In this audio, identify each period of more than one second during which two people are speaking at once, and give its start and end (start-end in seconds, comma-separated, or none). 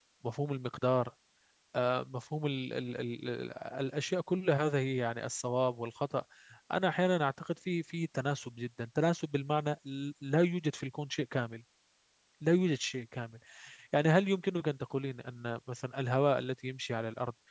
none